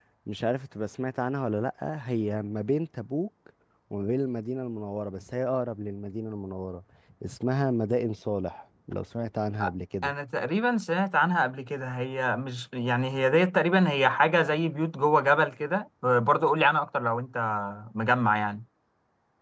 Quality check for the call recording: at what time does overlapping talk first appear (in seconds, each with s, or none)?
none